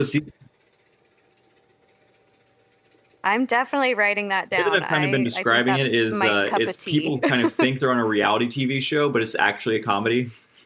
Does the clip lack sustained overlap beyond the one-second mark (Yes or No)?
No